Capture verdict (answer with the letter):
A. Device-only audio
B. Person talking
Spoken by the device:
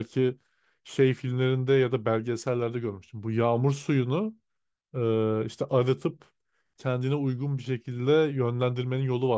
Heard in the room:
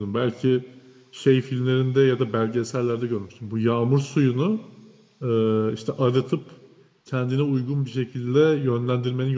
A